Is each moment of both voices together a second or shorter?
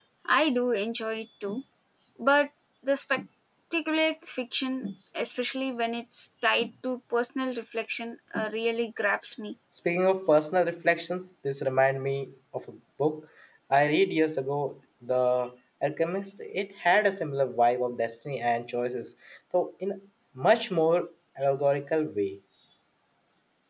Yes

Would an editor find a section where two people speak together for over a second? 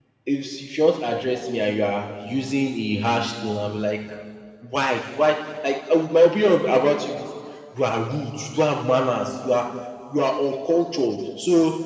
No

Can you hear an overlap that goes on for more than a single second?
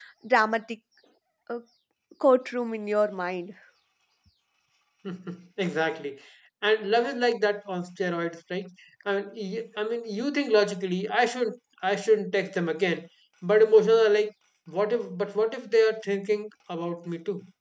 No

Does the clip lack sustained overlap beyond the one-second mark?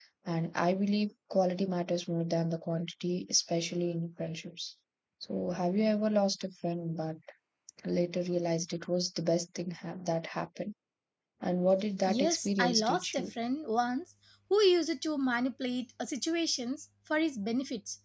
No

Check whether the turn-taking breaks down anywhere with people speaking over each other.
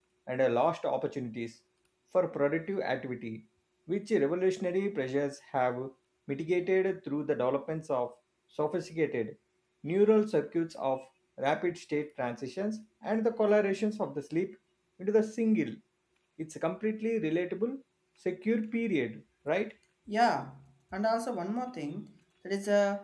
No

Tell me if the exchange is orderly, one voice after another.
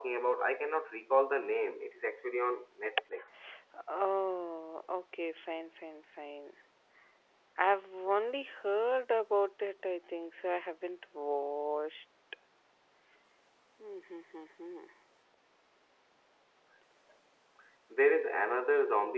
Yes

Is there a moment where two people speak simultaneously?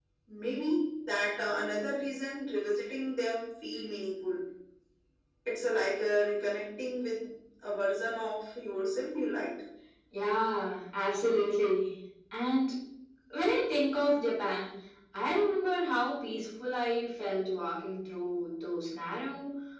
No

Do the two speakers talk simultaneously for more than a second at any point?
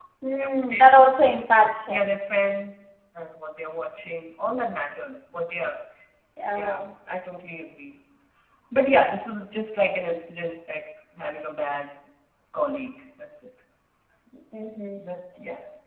No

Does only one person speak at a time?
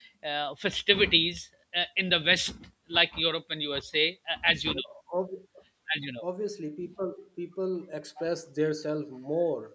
Yes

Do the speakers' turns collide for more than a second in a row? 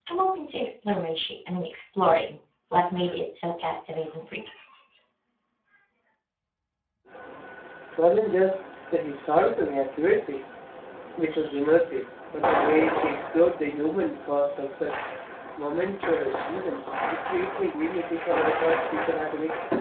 No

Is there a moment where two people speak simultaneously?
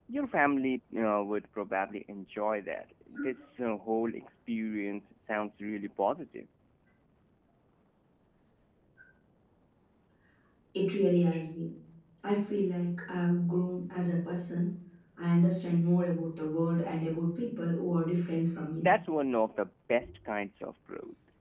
No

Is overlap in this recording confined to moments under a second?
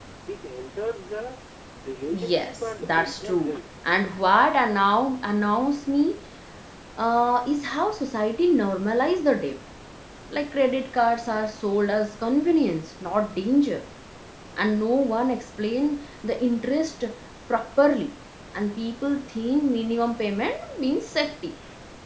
No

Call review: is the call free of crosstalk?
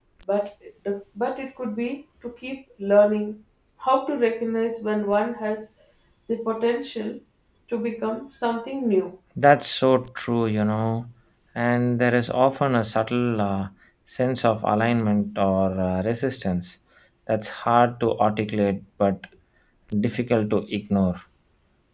Yes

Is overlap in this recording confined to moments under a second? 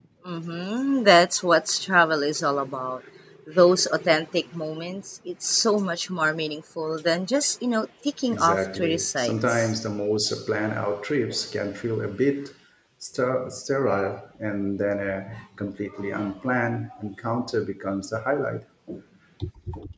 No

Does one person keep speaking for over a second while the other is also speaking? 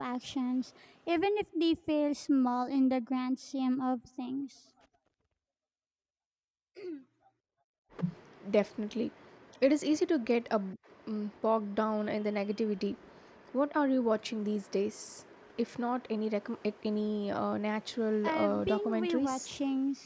Yes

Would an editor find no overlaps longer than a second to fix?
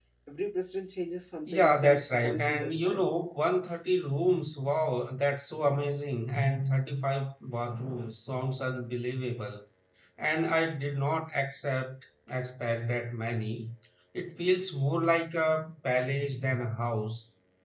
No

